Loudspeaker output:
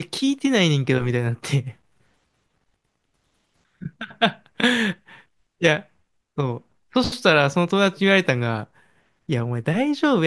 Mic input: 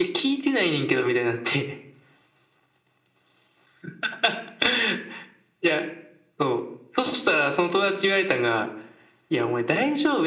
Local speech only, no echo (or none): none